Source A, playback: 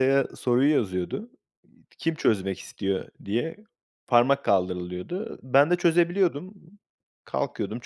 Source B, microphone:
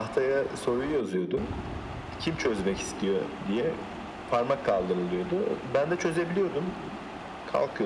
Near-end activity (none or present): none